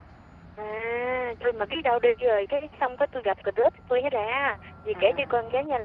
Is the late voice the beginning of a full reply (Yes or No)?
No